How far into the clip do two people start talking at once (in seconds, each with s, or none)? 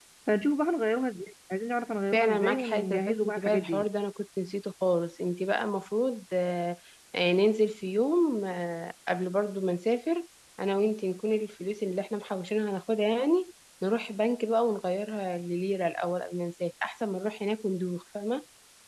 2.1 s